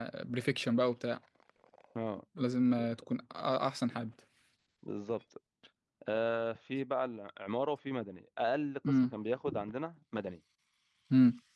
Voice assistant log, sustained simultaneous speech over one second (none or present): none